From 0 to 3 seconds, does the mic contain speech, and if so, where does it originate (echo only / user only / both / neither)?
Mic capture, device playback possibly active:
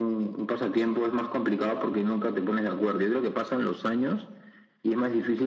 echo only